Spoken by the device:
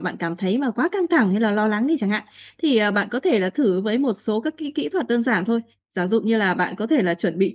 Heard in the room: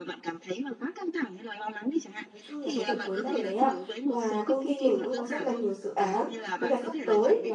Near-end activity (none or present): present